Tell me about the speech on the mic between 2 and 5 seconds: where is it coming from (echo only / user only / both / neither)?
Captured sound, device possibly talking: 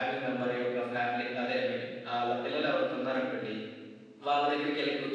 echo only